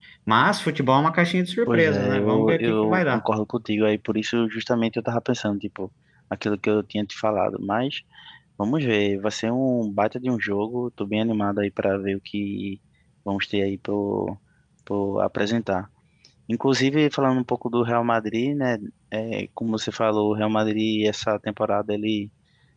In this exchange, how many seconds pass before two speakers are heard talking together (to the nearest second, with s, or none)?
2 s